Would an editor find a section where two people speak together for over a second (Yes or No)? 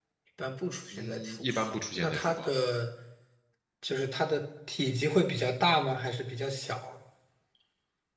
Yes